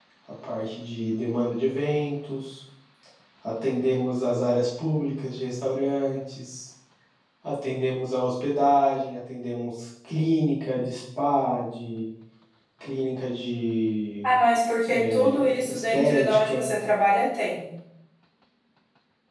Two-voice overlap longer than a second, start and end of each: 14.9-16.7

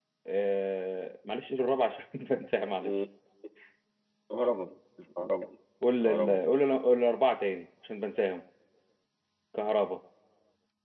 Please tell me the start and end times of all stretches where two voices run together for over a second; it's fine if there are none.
none

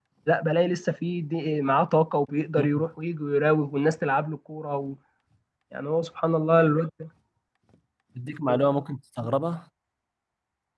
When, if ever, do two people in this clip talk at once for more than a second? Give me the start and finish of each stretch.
none

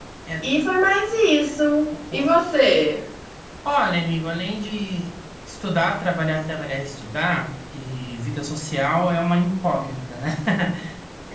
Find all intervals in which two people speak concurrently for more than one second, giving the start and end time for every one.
none

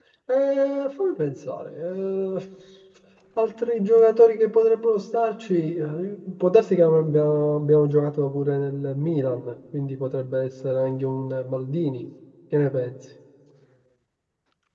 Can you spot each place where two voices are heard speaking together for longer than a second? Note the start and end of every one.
none

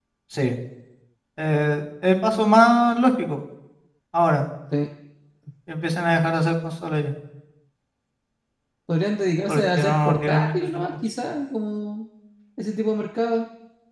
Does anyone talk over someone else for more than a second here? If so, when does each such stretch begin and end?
9.5-10.8

